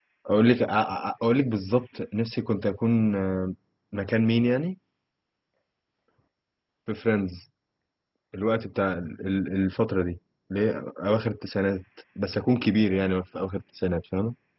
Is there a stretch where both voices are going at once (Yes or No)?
No